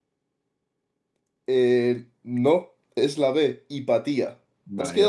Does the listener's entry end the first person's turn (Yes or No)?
Yes